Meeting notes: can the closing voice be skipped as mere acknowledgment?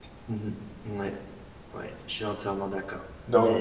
No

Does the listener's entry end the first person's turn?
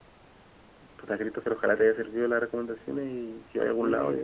Yes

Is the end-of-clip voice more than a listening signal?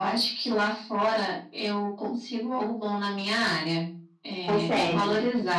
No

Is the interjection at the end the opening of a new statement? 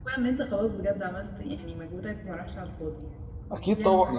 Yes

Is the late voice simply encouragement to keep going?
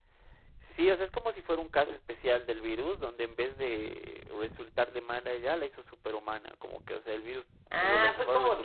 No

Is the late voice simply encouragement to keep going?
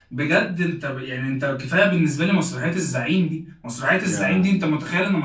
Yes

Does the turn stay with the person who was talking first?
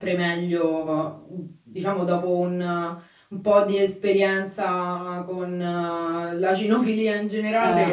Yes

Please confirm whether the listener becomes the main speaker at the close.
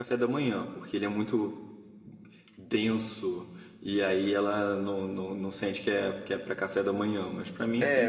Yes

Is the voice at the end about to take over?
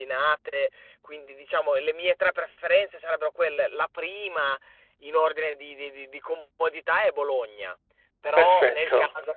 No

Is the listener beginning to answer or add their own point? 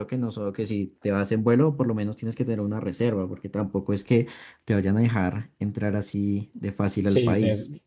Yes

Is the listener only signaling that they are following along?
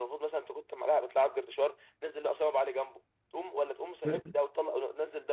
Yes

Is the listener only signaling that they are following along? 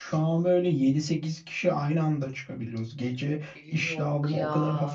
Yes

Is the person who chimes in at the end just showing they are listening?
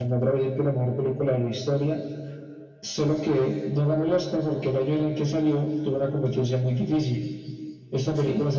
Yes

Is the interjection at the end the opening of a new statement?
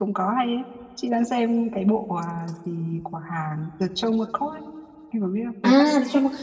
Yes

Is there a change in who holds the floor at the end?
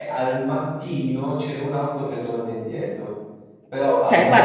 Yes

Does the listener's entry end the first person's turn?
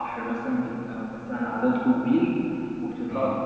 No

